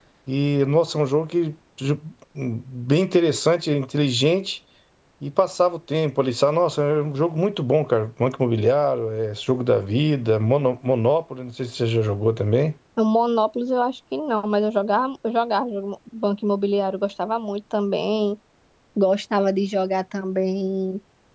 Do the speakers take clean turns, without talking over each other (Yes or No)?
Yes